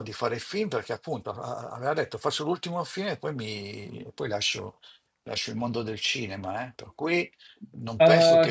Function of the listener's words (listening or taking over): taking over